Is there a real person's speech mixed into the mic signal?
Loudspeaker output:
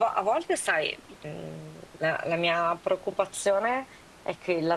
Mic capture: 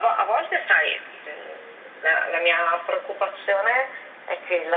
No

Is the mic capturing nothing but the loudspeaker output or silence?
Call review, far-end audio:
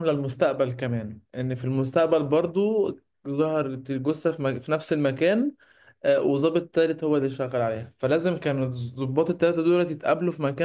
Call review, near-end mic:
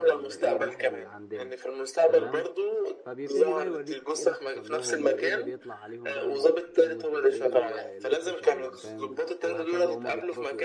No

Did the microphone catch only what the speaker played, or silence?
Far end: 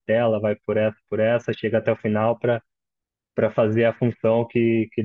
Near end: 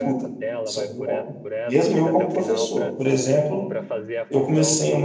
No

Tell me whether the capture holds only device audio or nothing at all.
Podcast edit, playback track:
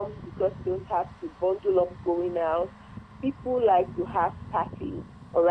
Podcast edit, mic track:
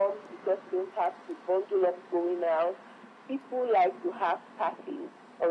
Yes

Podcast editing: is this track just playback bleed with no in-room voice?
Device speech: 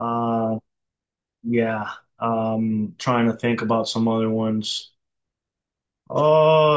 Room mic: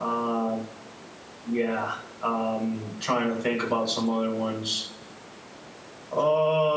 Yes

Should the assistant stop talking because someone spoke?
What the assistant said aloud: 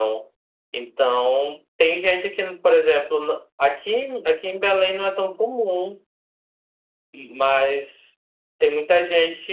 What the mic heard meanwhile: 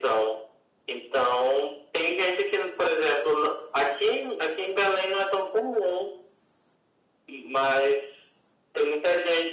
No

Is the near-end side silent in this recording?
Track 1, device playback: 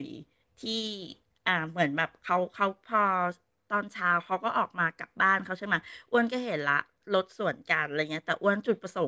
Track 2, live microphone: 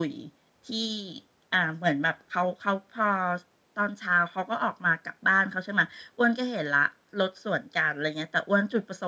Yes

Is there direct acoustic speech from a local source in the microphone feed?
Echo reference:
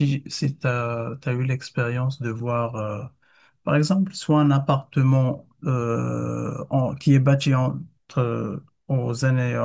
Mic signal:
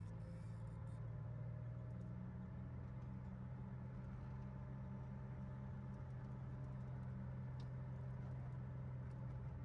No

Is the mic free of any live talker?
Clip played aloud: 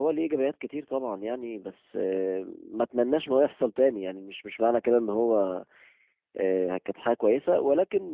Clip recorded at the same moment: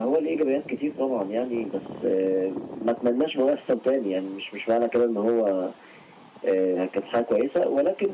Yes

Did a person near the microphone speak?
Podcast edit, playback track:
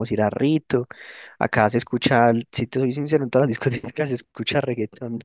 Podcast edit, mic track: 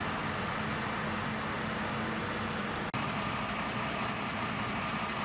No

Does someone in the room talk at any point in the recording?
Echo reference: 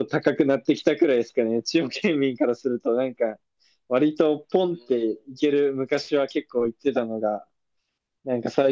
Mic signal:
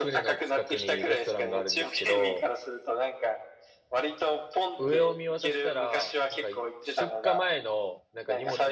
Yes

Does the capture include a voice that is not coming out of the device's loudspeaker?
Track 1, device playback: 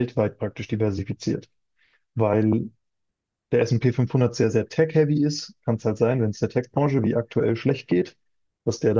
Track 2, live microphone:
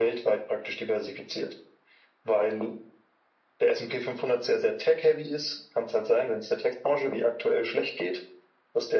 No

